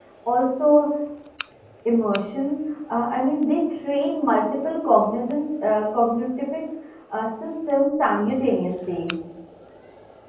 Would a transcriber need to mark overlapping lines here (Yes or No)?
No